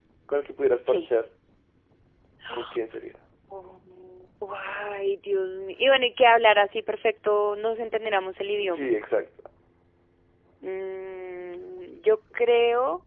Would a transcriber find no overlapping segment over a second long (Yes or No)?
Yes